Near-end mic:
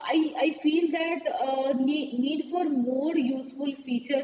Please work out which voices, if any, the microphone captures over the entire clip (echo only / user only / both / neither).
echo only